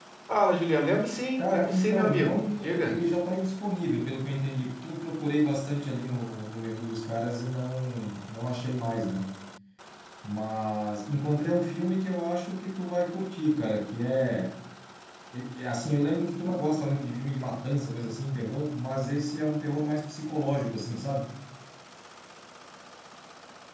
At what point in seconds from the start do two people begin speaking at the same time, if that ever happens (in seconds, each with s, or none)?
1.4 s